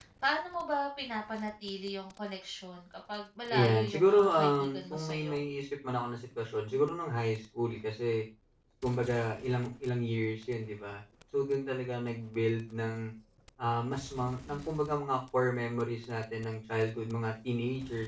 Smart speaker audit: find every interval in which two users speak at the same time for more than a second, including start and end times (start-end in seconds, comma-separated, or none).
3.5-5.4